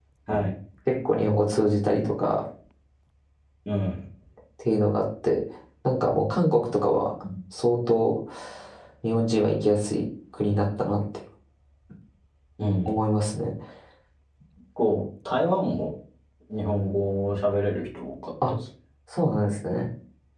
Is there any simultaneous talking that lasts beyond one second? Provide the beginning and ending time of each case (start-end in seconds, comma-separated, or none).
none